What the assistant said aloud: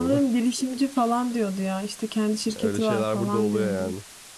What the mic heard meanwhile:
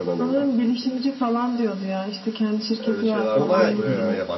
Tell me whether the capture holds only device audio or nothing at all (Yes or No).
No